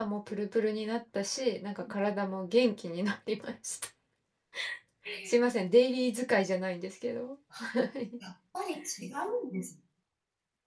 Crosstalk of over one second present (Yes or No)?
No